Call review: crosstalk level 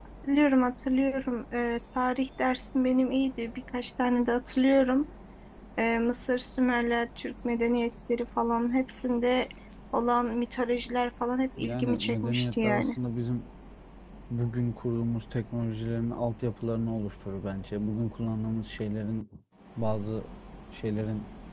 present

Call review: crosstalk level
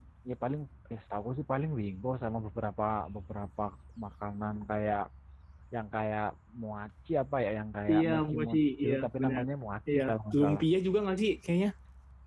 present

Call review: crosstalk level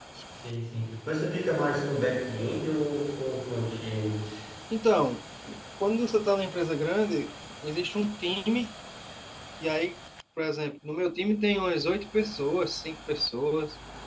none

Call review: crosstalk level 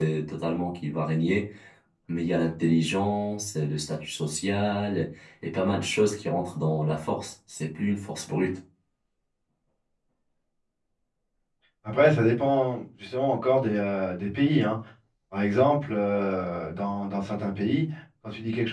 none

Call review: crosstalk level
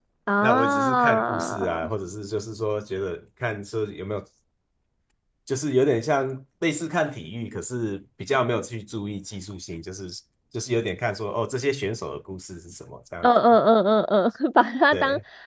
present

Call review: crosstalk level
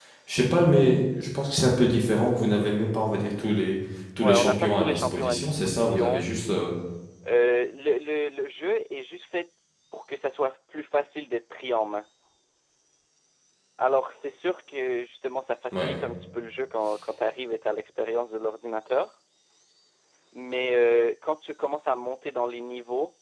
present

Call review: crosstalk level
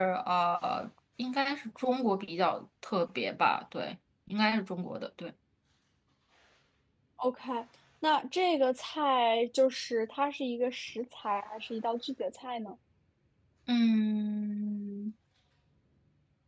none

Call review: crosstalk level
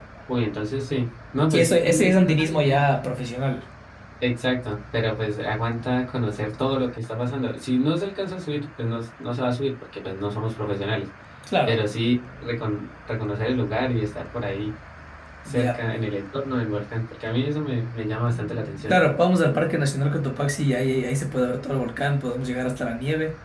present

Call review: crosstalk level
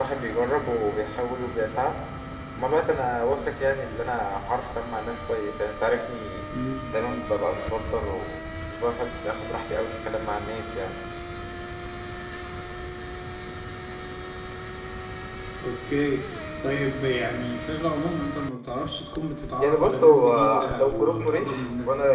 present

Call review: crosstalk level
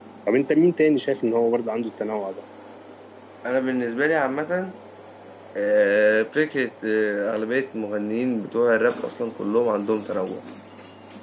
none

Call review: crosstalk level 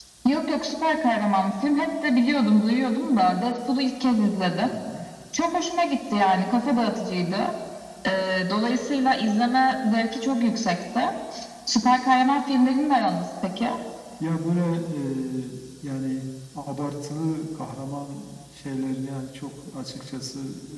none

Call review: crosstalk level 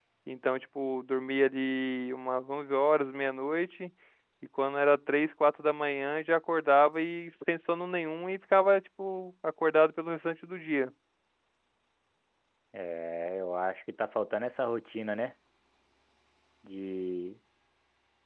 none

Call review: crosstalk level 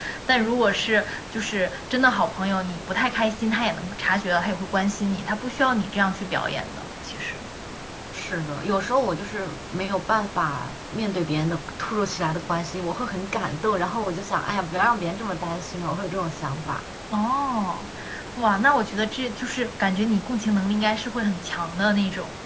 none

